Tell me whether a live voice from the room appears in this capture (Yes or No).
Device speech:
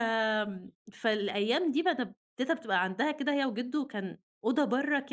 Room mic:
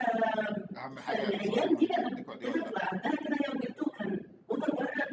Yes